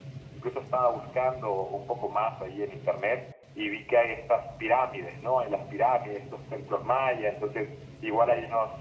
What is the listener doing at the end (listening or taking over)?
listening